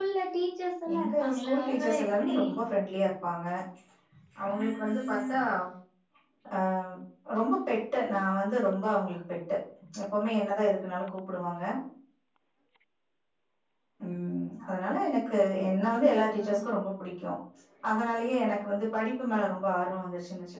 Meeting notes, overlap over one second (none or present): present